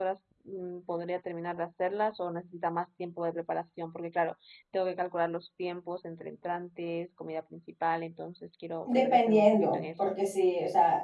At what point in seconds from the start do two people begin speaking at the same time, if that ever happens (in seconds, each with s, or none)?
8.9 s